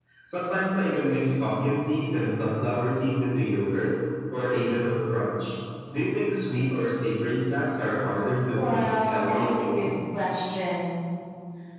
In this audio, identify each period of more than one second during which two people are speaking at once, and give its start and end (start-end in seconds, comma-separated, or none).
8.6-9.9